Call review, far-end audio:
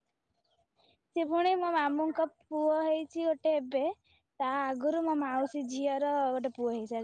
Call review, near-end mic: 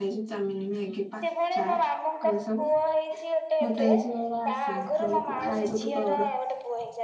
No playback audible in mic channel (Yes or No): No